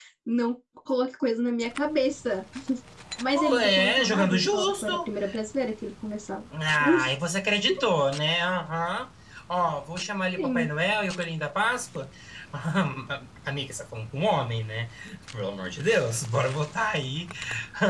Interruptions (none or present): present